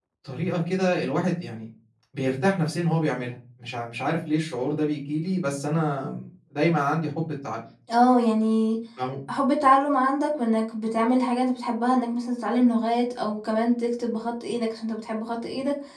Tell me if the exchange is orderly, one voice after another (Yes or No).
Yes